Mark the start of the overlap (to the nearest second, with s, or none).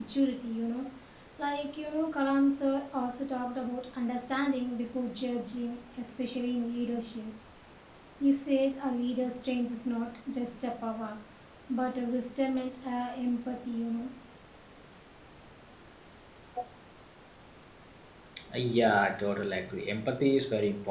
none